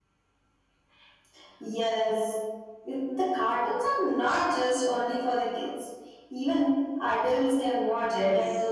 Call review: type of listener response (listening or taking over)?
taking over